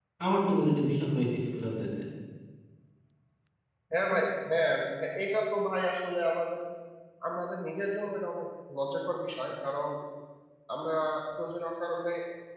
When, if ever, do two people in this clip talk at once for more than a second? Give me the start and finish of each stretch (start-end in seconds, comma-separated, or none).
none